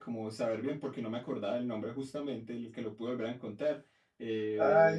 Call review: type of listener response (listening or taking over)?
taking over